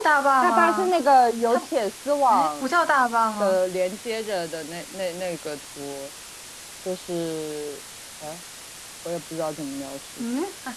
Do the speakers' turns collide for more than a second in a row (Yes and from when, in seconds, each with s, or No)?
No